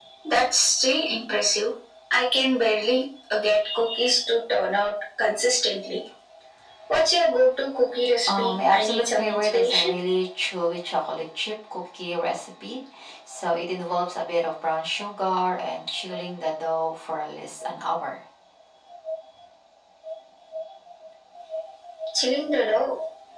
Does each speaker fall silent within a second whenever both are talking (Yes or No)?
No